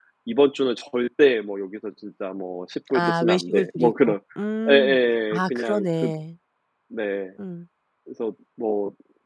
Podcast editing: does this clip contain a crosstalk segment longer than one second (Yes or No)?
Yes